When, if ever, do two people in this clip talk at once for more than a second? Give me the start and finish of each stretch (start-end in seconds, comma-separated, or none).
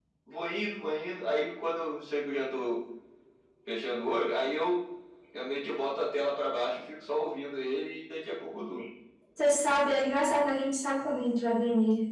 none